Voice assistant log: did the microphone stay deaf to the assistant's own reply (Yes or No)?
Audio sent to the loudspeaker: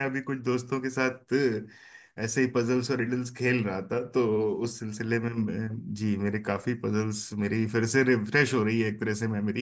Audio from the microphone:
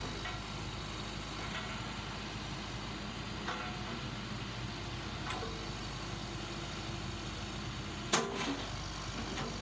Yes